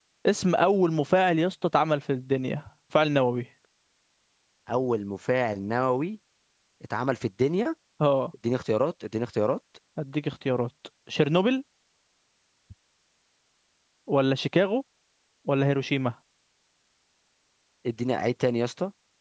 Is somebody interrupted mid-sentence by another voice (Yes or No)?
No